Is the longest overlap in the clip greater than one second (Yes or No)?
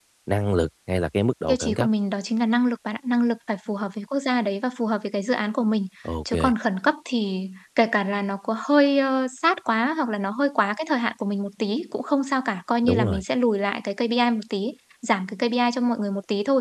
No